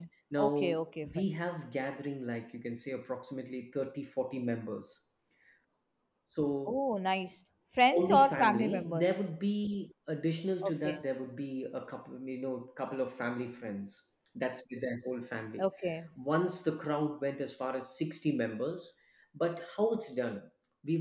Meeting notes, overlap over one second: present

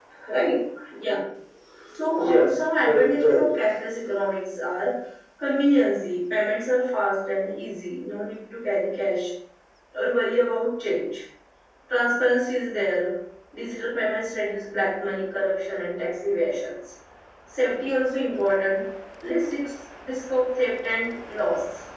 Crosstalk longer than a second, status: present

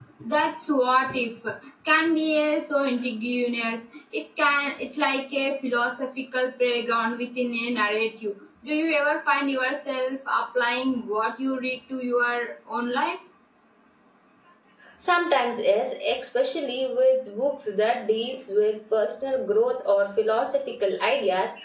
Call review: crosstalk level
none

